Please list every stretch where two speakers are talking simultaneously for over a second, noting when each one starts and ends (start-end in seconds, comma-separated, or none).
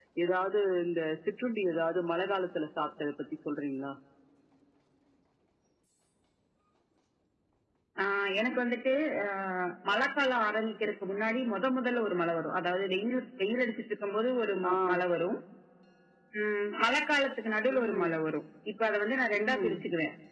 none